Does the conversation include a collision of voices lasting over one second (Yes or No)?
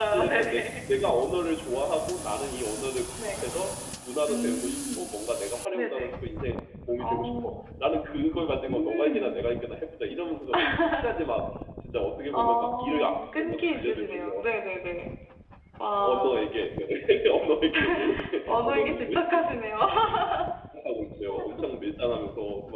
Yes